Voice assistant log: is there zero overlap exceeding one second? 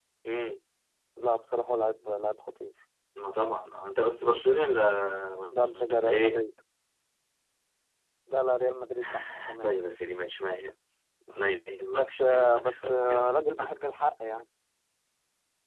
No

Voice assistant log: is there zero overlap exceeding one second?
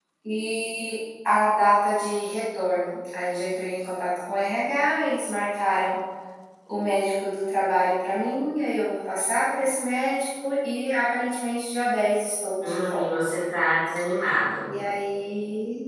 Yes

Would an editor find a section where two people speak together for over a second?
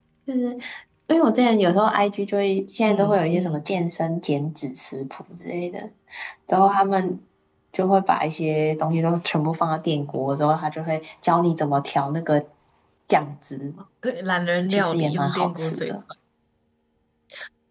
Yes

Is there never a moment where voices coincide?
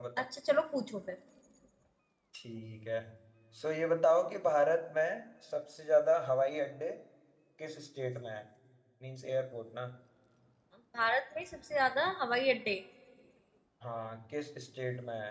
Yes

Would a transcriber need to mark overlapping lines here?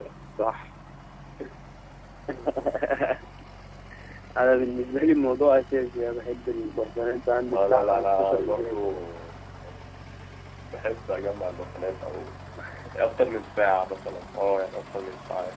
Yes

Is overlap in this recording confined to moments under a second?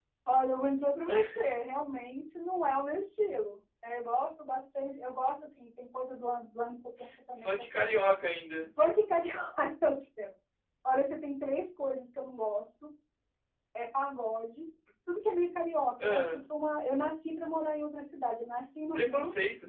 Yes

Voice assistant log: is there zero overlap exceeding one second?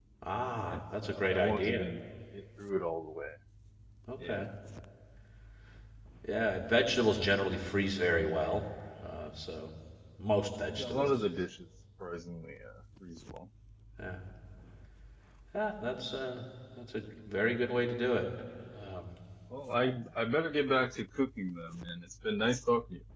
No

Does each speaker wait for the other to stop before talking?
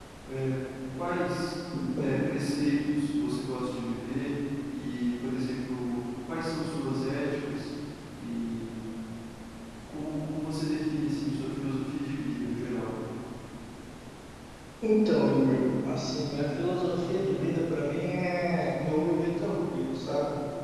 Yes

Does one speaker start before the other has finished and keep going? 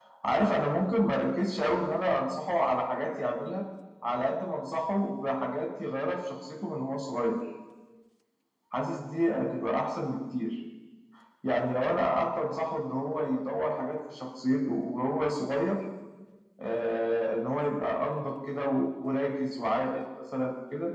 No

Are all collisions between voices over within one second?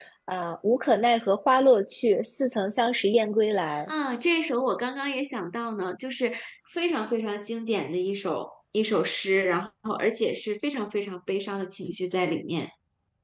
Yes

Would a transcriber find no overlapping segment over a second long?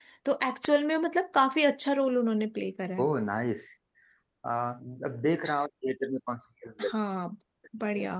Yes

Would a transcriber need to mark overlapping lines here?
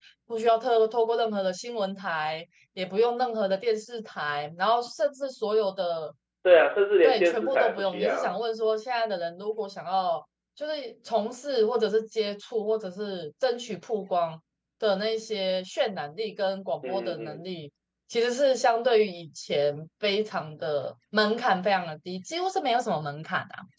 Yes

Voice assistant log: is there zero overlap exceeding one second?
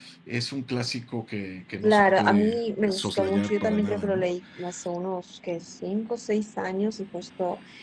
No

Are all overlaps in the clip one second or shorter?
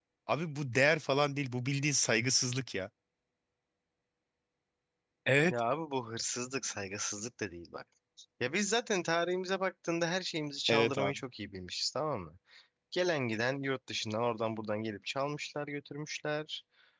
Yes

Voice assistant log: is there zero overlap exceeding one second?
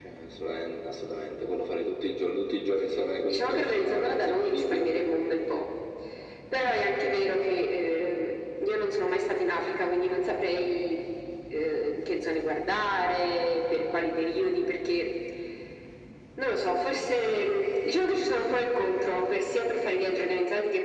No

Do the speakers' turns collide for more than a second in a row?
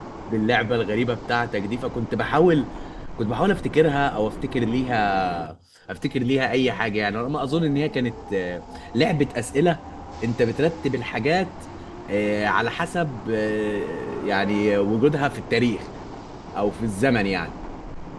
No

